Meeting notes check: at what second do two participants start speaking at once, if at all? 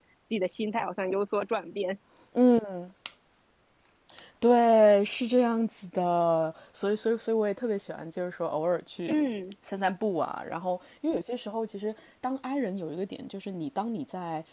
none

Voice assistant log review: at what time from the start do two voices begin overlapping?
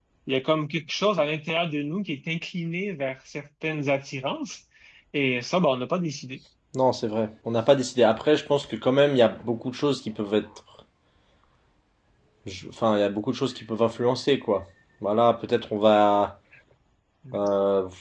none

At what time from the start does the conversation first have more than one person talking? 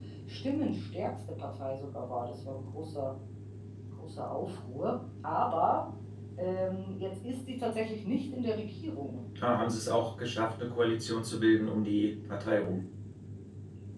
none

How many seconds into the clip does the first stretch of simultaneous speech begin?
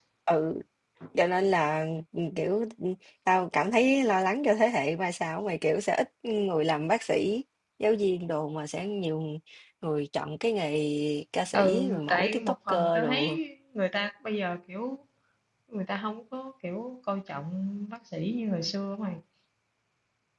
12 s

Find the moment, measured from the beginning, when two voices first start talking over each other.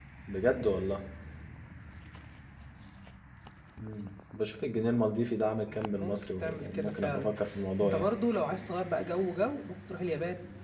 6 s

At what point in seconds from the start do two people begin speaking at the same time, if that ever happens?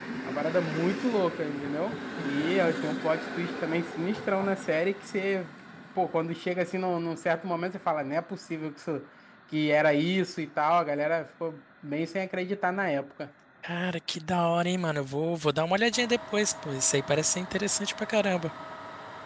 none

